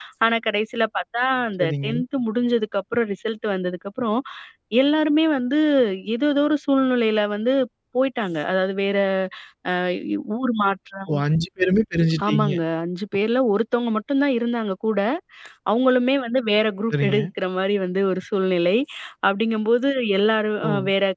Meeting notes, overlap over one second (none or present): none